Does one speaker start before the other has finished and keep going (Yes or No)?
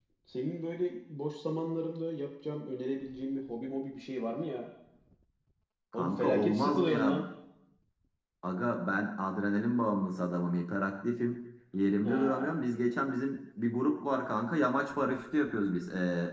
Yes